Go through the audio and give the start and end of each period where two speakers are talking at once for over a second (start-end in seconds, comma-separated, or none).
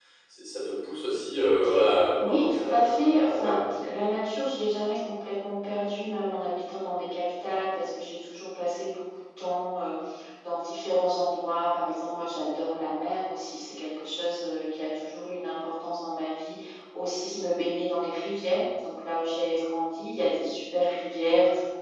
2.2-3.6